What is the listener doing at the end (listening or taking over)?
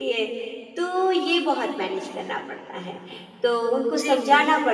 listening